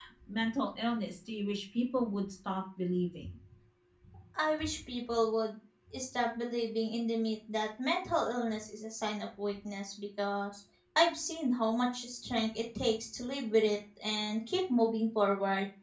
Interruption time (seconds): none

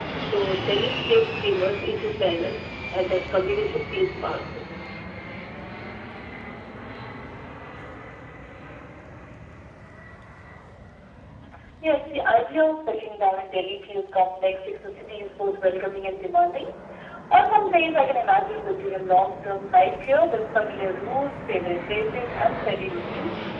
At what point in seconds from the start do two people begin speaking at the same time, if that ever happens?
none

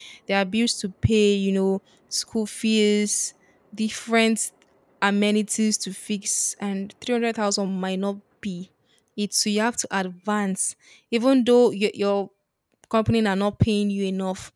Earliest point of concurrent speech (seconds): none

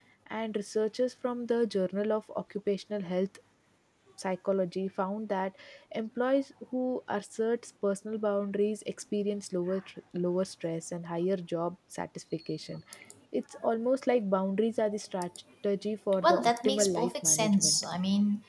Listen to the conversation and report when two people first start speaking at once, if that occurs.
16.2 s

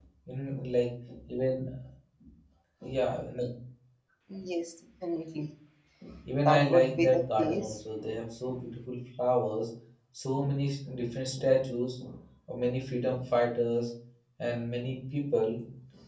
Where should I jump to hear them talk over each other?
6.4 s

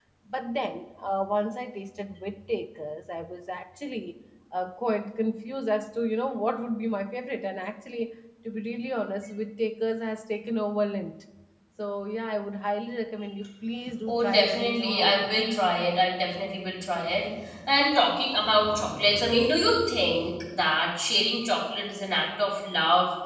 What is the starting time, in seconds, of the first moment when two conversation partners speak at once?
14.1 s

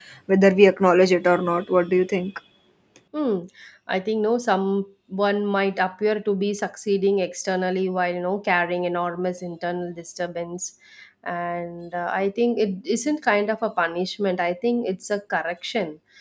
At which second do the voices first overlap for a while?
none

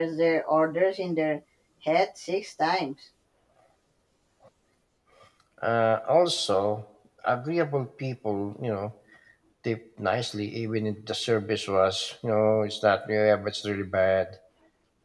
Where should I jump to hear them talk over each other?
none

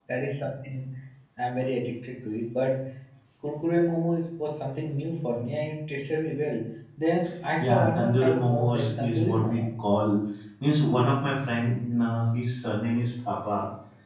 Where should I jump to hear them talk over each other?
7.6 s

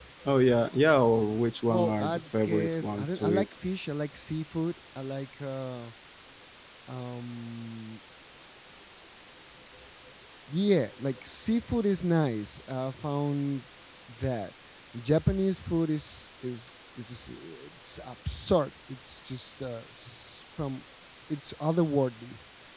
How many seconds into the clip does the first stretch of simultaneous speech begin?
1.7 s

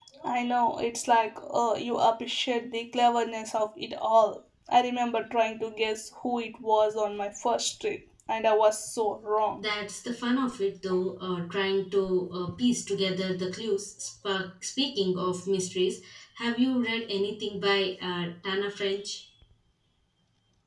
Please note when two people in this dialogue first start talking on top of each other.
none

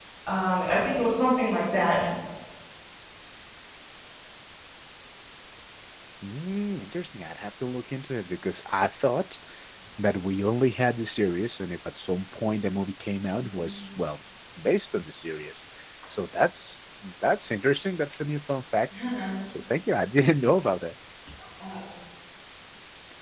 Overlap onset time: none

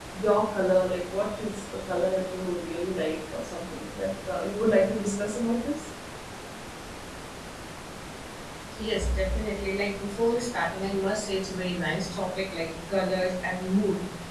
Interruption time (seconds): none

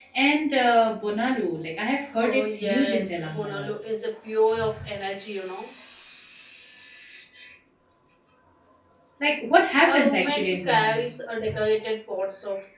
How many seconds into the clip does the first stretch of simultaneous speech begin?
2.2 s

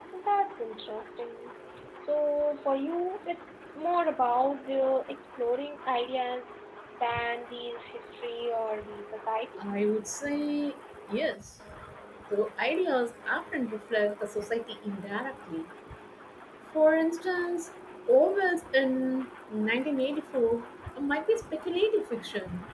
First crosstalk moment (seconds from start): none

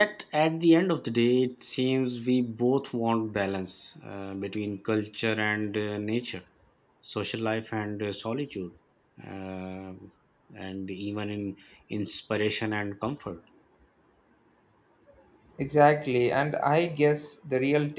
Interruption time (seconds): none

